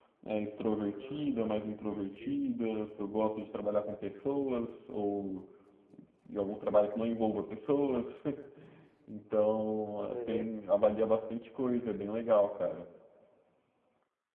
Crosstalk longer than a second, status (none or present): present